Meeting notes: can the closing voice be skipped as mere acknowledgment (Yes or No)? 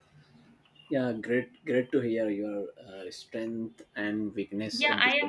No